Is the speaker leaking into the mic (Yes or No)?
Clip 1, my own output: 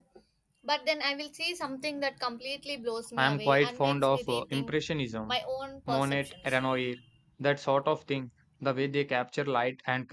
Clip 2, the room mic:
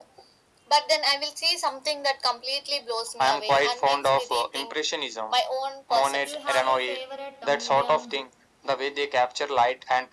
Yes